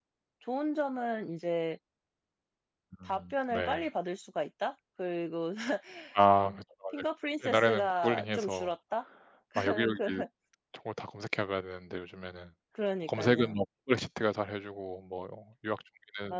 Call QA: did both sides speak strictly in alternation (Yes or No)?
No